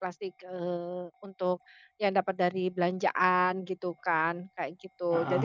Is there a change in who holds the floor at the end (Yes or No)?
No